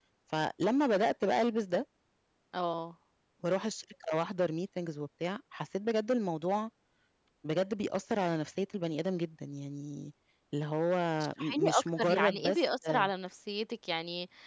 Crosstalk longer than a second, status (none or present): present